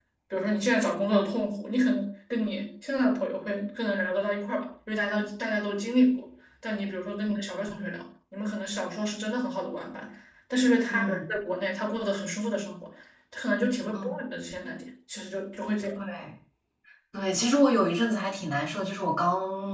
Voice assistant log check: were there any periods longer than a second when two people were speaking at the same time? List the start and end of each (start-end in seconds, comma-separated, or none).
none